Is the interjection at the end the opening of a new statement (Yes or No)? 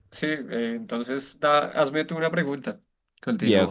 Yes